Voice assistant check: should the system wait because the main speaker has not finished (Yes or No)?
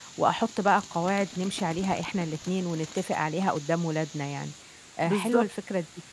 Yes